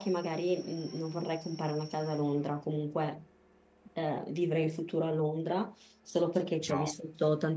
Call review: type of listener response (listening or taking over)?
listening